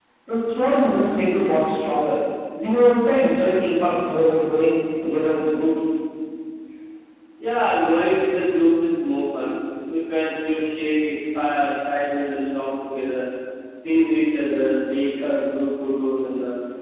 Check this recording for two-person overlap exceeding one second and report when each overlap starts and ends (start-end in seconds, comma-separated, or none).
none